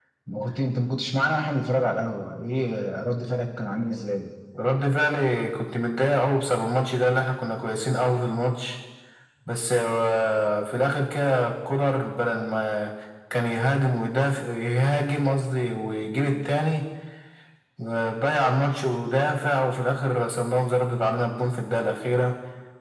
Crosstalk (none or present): none